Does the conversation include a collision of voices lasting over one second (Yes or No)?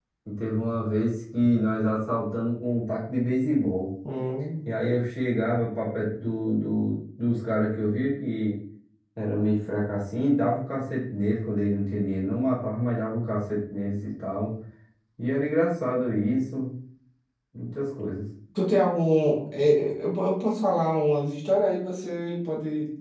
No